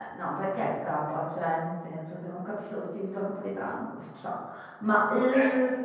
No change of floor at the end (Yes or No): Yes